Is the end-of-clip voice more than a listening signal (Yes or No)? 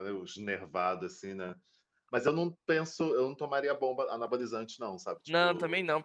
Yes